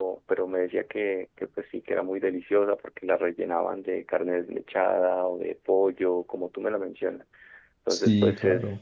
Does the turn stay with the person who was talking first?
Yes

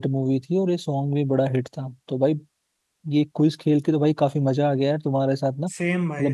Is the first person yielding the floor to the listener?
No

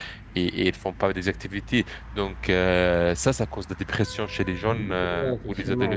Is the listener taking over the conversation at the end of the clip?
Yes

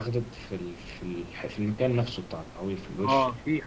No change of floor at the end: No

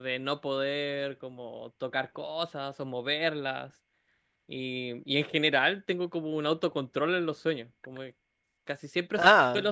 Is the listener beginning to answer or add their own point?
No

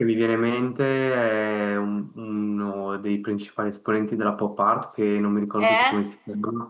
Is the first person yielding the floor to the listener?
No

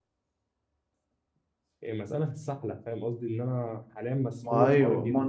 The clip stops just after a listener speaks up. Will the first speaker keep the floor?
No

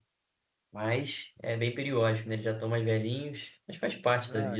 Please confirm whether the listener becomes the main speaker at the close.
Yes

